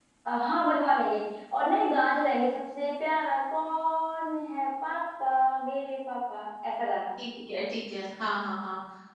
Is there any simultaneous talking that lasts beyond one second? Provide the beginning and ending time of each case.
none

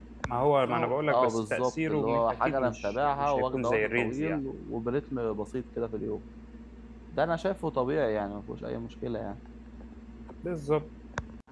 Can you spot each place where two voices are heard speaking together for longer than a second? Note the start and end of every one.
0.7-4.4

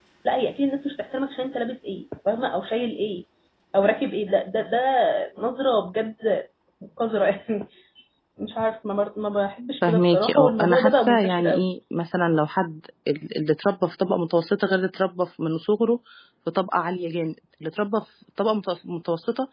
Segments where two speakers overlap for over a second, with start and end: 9.9-11.6

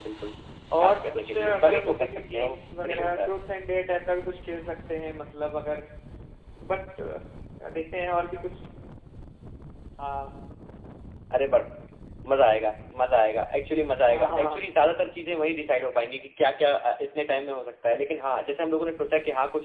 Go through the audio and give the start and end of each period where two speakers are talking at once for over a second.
0.8-3.3

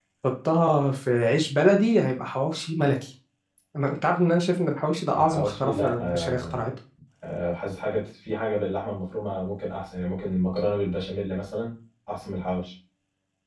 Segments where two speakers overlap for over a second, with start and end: 5.2-6.6

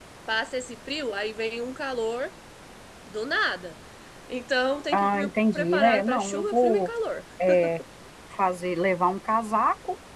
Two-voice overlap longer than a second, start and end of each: 4.9-6.9

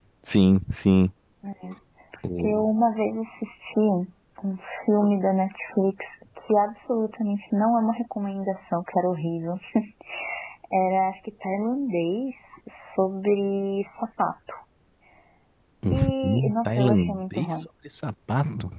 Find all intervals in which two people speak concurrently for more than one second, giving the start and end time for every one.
15.9-17.7

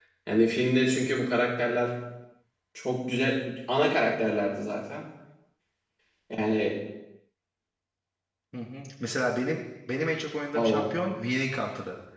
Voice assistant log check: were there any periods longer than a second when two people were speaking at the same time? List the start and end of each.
none

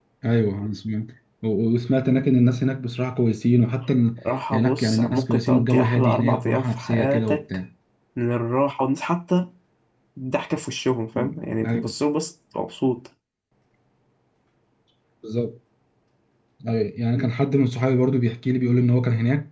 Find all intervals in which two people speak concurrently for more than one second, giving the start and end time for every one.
4.5-7.4

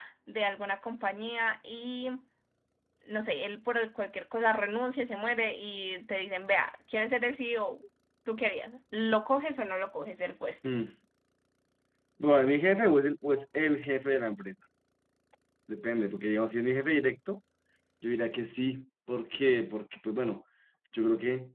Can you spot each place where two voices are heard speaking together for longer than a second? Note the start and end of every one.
none

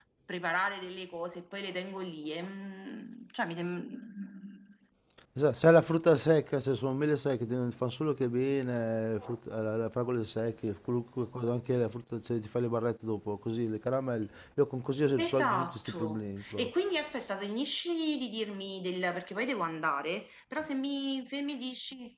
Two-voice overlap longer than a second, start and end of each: 15.2-16.7

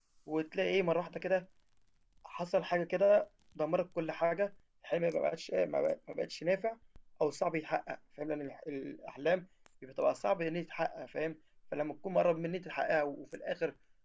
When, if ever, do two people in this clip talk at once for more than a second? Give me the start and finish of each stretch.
none

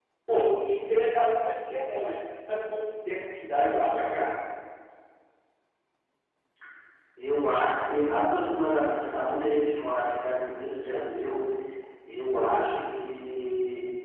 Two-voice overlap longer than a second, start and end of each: none

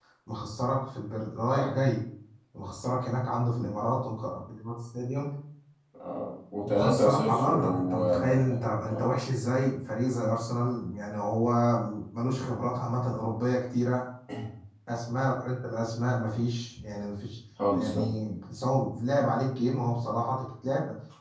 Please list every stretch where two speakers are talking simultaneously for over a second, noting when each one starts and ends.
6.7-9.2

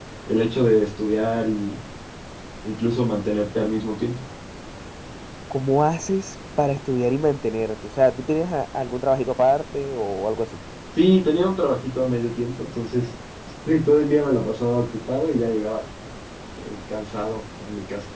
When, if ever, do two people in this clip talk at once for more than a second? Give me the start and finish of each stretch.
none

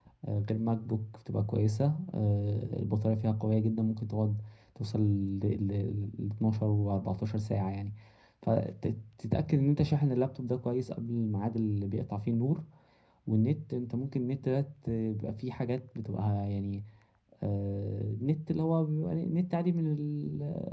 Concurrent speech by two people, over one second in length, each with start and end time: none

